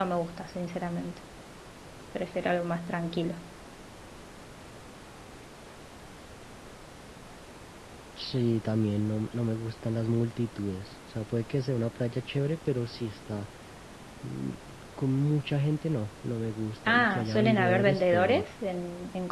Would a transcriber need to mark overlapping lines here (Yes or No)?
Yes